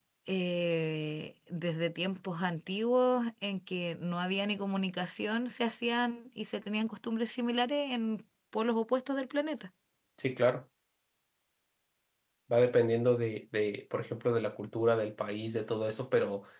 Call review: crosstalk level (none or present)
none